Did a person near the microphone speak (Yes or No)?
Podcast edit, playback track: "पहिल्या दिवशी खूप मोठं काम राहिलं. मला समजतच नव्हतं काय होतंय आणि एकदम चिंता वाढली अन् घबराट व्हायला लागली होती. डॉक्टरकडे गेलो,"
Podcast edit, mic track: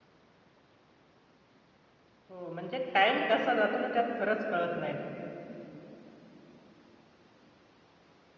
Yes